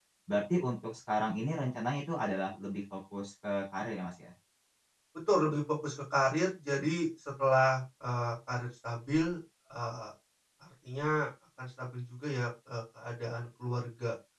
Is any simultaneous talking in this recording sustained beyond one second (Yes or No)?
No